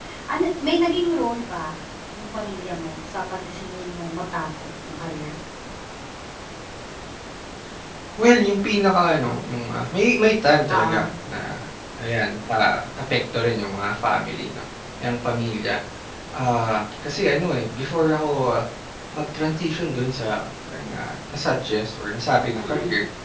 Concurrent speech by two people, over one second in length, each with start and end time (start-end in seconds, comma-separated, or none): none